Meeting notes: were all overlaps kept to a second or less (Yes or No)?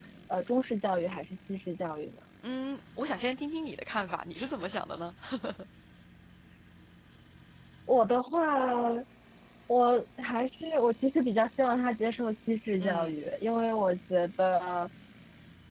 Yes